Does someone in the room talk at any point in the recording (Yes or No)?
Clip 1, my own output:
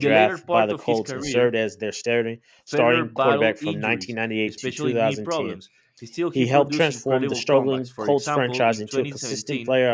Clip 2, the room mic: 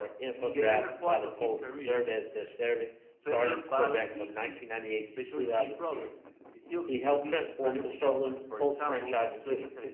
No